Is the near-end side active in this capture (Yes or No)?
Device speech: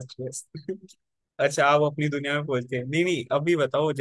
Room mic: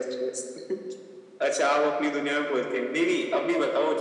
No